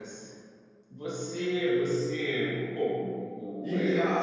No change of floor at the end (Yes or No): No